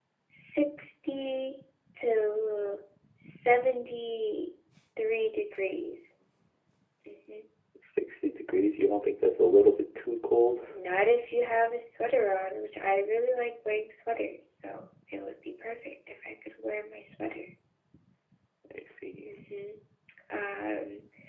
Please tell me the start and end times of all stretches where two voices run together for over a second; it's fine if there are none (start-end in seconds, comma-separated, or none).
none